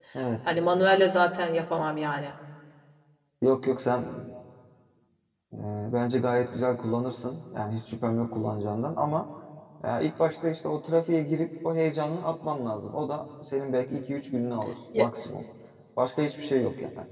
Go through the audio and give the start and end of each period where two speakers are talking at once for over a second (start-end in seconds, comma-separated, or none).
none